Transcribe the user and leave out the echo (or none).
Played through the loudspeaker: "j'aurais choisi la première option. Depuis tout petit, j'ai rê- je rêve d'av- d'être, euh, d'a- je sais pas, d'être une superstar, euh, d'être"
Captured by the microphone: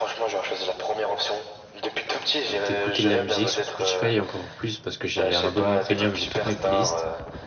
bah, d'écouter de la musique sur Spotify et encore plus parce que j'ai un abonnement premium, j'ai toutes mes playlists,